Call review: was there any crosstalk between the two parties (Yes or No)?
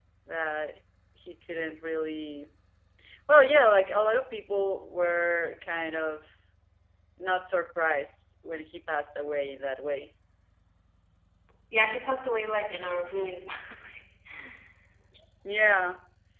No